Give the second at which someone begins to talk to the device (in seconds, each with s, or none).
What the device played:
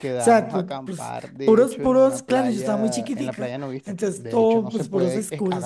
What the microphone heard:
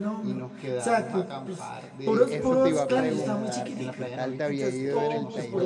2.0 s